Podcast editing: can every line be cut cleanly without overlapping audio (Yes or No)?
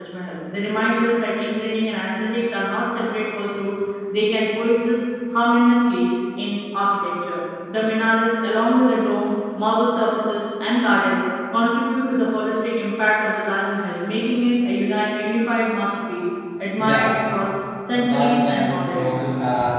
No